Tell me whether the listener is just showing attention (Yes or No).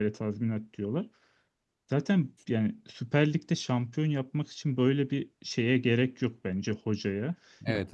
Yes